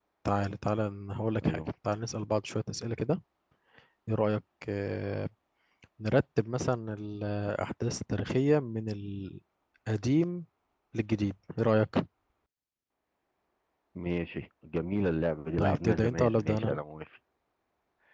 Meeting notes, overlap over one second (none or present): present